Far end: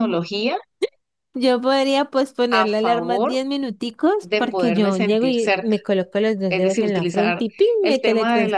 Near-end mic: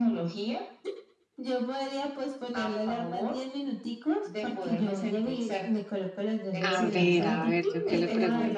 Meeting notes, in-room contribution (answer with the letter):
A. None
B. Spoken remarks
B